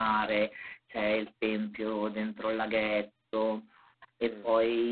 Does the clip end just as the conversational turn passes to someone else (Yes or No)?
No